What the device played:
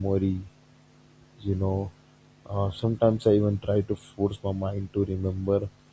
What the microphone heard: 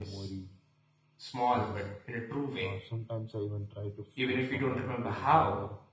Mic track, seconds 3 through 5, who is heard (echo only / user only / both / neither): both